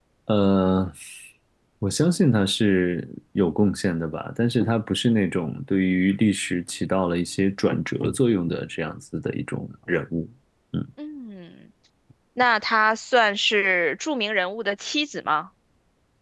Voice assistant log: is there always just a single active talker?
Yes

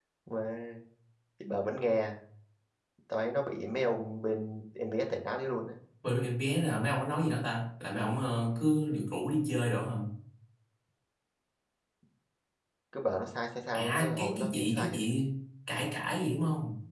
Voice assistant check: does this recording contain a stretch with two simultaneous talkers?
Yes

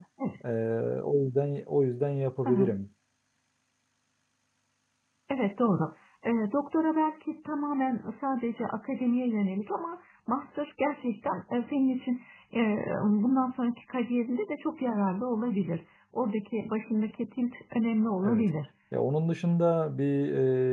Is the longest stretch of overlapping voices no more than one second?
Yes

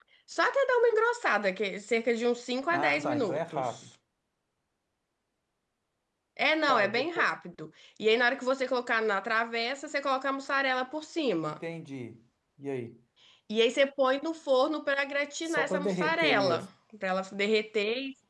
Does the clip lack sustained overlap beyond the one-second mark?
No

